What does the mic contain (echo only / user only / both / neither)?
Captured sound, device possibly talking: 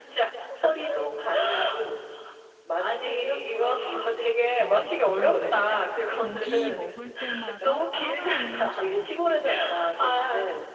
both